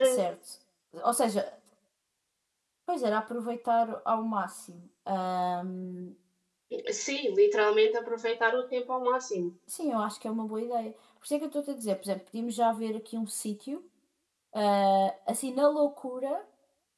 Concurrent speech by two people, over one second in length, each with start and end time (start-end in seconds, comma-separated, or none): none